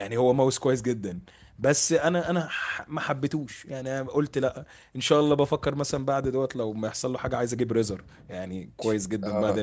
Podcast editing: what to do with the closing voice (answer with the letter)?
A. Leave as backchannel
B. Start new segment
B